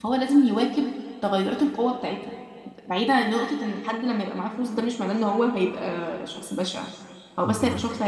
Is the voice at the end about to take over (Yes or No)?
No